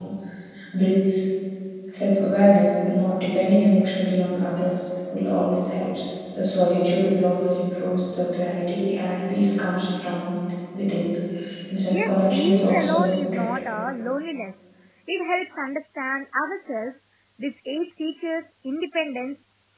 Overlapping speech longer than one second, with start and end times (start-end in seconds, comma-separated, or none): 11.9-13.4